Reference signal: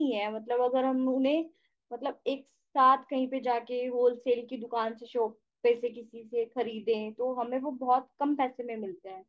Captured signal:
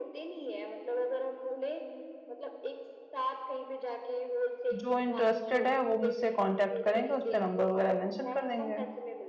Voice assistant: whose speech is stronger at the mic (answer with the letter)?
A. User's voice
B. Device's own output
A